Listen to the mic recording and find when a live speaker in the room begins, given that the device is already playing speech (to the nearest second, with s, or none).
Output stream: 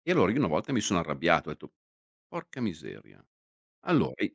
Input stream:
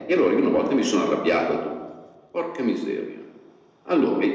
none